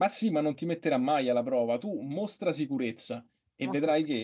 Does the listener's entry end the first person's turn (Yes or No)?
No